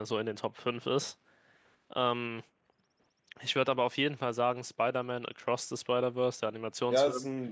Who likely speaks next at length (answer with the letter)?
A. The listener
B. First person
A